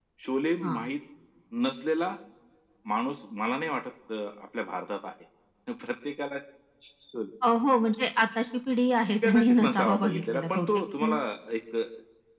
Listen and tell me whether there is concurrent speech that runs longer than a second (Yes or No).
Yes